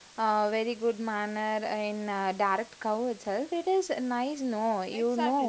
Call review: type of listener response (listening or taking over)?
taking over